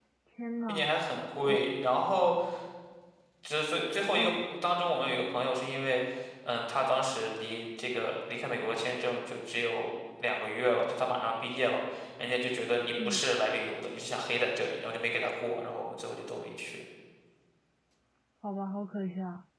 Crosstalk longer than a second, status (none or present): none